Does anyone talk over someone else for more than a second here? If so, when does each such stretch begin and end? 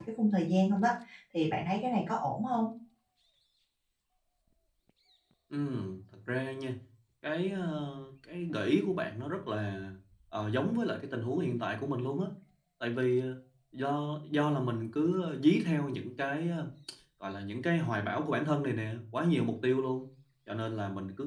none

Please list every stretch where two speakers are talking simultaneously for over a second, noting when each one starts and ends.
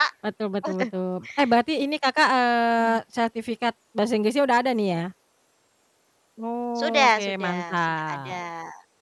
6.8-8.4

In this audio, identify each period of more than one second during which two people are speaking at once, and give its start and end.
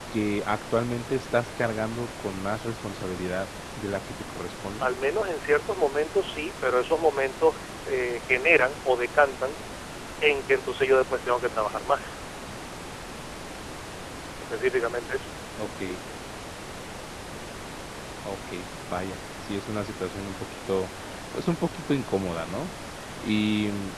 none

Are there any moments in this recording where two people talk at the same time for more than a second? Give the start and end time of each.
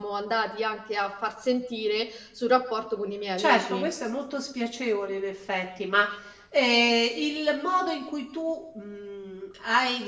none

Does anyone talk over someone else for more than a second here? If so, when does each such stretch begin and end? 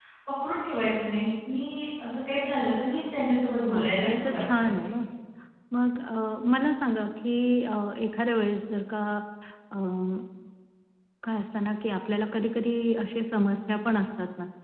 3.7-5.0

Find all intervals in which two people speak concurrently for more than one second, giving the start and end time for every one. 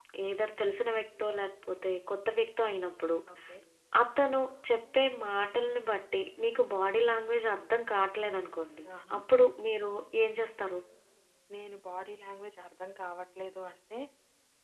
none

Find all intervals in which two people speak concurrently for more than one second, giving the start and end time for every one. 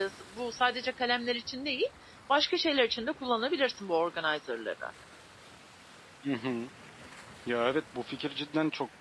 none

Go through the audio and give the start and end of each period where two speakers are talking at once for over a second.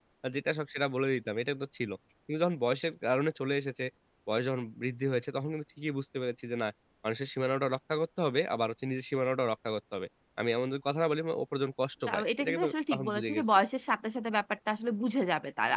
12.1-13.6

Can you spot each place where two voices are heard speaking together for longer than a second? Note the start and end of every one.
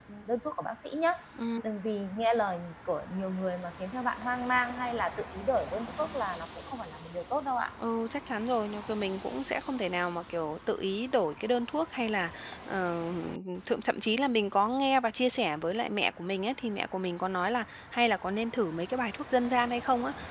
none

